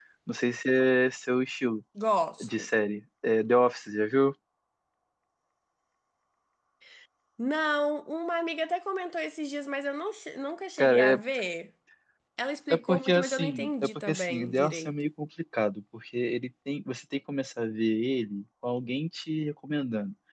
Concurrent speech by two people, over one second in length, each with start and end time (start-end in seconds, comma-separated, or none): 12.7-14.9